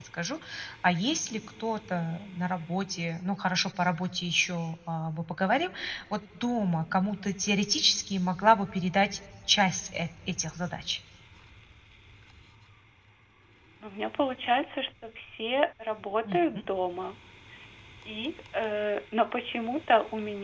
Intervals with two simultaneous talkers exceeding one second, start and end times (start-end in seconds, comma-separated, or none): none